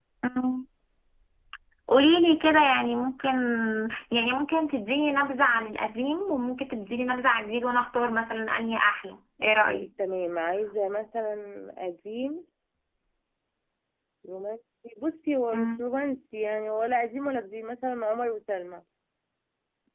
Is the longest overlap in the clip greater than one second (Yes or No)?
No